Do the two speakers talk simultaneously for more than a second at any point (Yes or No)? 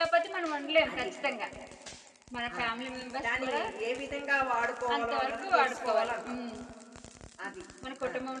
Yes